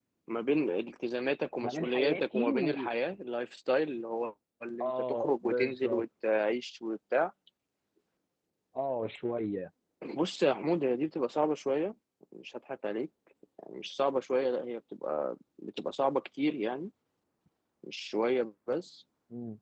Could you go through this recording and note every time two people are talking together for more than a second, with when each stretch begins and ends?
1.6-2.9, 4.8-6.0

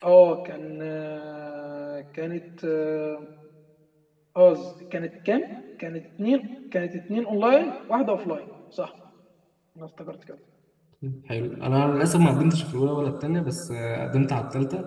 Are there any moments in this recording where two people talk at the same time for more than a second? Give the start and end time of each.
none

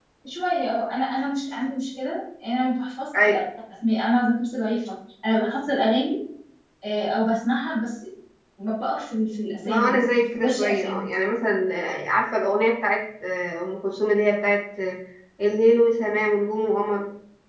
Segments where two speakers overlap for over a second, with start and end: 9.7-11.1

